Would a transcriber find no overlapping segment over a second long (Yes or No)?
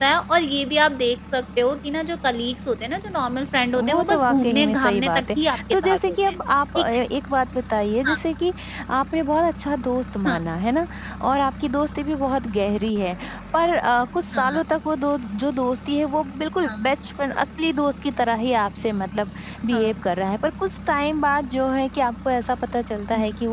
No